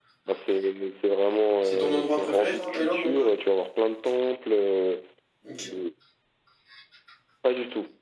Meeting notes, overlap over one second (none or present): present